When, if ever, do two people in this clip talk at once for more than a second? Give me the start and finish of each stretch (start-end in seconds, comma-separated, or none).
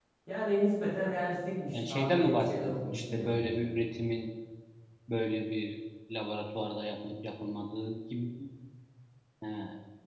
1.7-3.7